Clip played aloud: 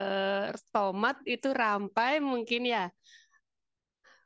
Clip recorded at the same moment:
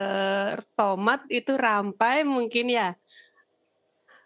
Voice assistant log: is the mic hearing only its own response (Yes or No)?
Yes